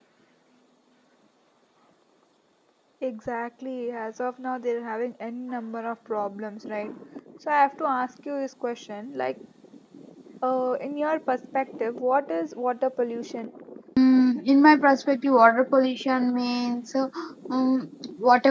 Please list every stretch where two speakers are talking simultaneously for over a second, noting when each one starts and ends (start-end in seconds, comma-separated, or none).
none